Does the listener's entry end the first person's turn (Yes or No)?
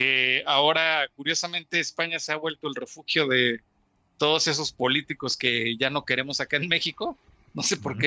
No